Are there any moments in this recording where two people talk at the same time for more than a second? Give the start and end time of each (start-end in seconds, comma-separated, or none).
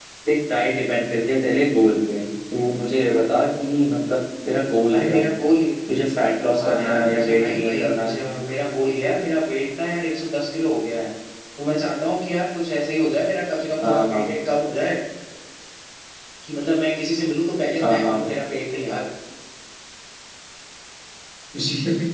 6.6-8.2